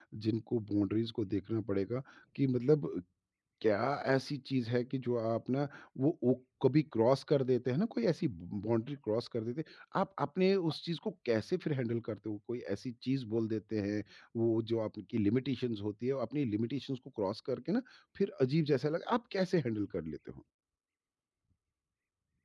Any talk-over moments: No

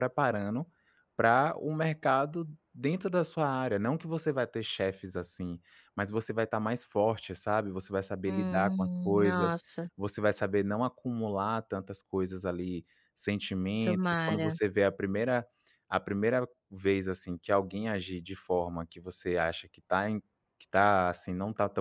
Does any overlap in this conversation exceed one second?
Yes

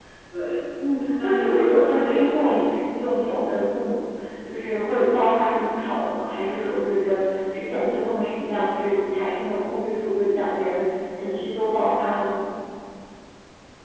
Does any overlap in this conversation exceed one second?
Yes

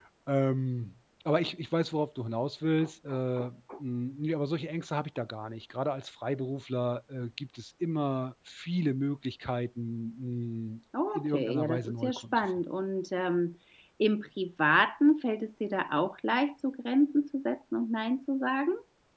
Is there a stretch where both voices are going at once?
Yes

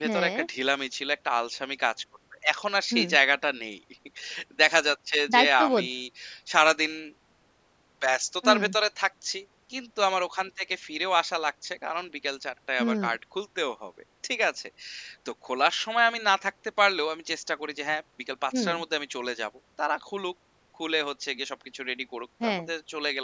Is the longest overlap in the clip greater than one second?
No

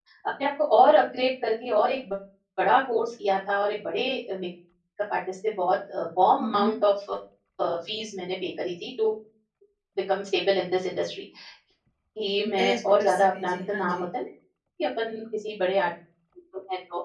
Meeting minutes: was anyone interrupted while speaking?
Yes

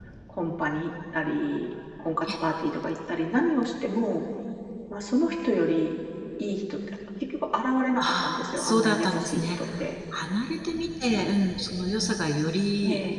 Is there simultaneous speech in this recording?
Yes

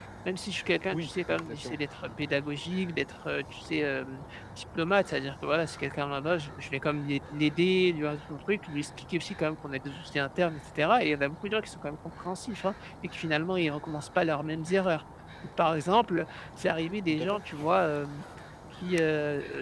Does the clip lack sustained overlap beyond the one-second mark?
No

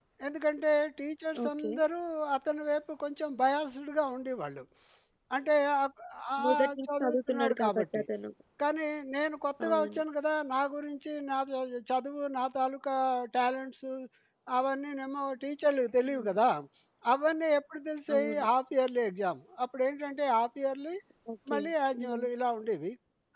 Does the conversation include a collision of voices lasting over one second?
Yes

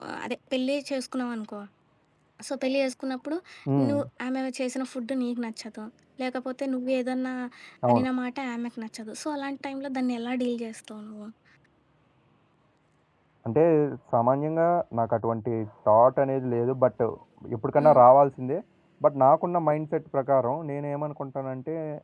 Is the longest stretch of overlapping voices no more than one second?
Yes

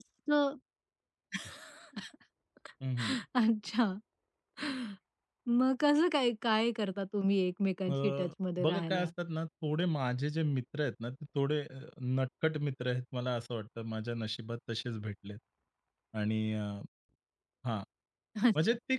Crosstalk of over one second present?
No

